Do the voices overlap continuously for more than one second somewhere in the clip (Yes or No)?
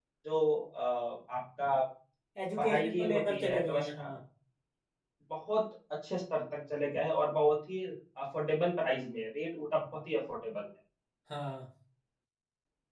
Yes